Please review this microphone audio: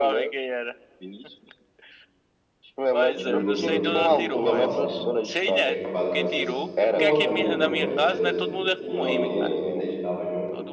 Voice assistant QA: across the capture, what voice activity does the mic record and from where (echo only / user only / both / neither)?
both